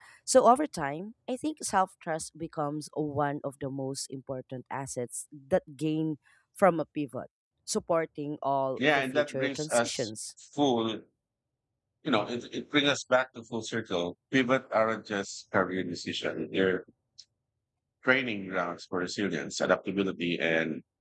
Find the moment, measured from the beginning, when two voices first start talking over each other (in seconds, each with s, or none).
8.8 s